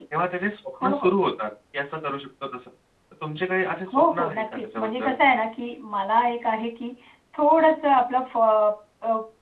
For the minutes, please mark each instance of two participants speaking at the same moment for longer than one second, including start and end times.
3.9-5.2

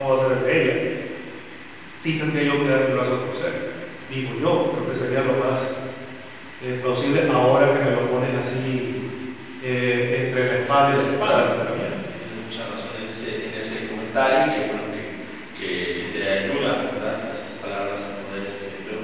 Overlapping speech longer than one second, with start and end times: 10.6-11.9

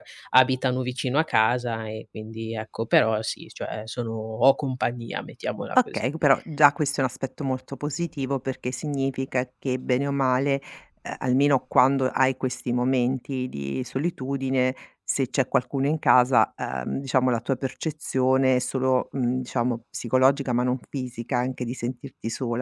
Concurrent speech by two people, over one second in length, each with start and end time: none

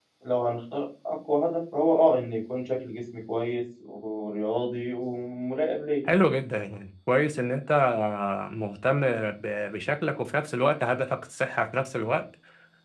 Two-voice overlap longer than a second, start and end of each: none

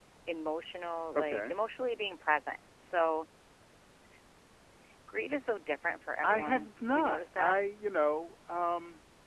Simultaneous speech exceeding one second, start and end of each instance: 6.2-7.6

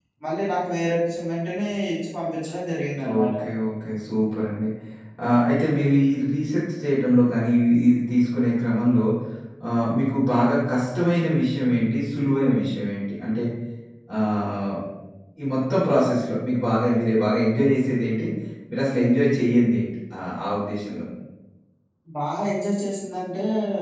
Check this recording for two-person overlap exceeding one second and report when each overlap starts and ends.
none

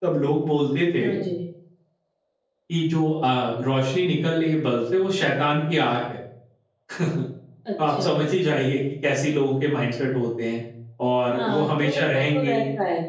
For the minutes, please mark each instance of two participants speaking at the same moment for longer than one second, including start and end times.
11.3-12.6

